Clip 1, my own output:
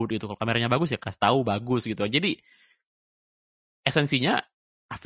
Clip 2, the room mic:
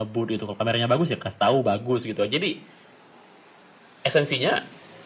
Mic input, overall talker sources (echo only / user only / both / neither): echo only